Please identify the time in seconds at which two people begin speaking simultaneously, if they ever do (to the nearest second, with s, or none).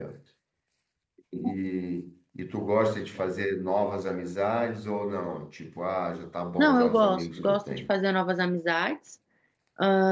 7 s